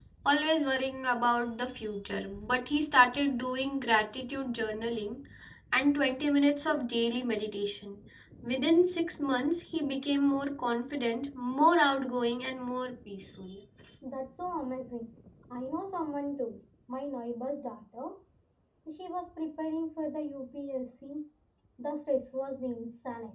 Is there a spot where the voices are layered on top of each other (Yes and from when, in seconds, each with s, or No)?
No